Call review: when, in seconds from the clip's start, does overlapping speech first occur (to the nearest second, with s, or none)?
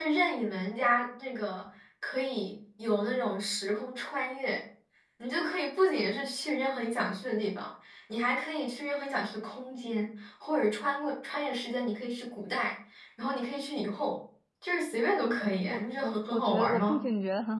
16 s